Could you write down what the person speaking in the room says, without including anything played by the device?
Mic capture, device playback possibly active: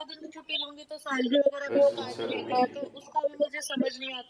अ, इस समस्या को भी।

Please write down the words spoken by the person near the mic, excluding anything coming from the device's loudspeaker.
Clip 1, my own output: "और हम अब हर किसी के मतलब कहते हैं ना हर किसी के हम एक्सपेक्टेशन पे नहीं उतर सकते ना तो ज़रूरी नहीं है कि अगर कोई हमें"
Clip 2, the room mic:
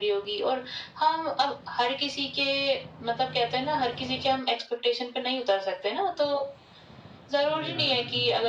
जी हाँ,

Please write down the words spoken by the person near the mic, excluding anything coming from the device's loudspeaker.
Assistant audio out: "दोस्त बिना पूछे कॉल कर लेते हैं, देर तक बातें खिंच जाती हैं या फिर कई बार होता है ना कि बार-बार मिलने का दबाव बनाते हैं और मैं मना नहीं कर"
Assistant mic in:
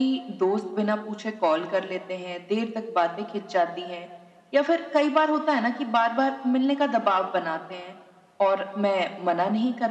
none

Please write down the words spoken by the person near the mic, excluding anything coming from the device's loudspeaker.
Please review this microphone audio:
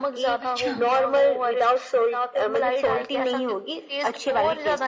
अच्छा,

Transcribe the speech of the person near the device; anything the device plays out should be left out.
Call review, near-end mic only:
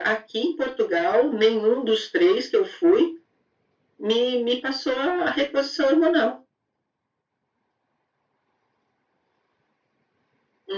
none

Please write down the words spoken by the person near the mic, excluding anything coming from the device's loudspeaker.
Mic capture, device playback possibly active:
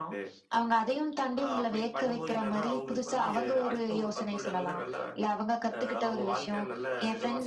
none

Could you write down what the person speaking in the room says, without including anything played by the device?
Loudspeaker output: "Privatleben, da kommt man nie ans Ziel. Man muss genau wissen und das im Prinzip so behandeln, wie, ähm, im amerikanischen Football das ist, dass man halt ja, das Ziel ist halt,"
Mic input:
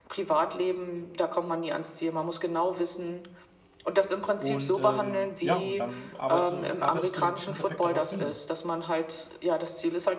und, ähm, ja, und dann arbeitest du arbeitest du im Endeffekt darauf hin.

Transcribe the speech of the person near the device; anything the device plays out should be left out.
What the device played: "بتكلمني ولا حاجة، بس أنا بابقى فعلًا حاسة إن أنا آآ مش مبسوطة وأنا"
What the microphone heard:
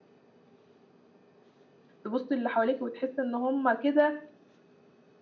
تبُصّي للي حواليكِ وتحسّي إن هم كده

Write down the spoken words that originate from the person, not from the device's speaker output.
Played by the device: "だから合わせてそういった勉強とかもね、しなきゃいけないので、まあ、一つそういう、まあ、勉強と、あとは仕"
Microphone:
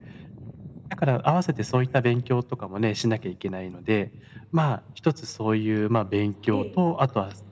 ええ、

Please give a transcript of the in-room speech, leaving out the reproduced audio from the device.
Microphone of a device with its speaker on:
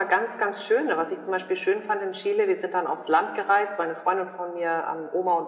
none

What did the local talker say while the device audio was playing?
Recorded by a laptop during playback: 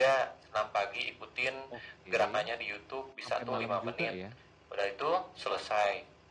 oke, sampai malam juga ya?

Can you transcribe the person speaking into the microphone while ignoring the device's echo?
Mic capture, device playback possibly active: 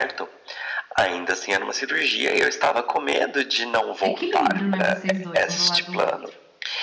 Equilíbrio, né, vocês dois, um do lado do outro.

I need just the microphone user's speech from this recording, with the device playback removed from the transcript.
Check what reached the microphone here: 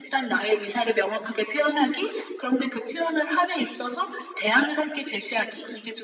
none

